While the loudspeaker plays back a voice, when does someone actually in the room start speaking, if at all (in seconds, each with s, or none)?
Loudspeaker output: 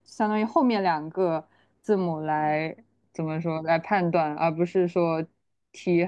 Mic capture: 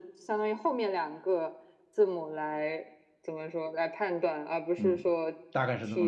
4.8 s